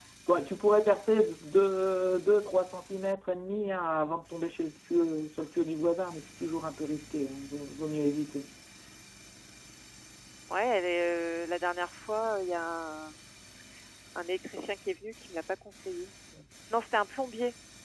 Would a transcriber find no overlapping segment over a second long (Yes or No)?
Yes